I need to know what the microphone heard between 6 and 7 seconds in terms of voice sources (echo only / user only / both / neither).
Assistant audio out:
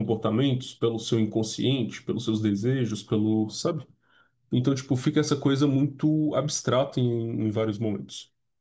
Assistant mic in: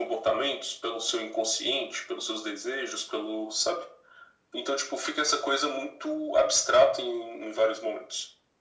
echo only